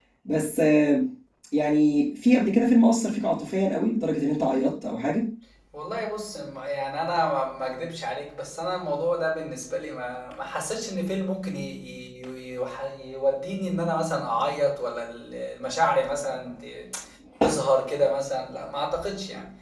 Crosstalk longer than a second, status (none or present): none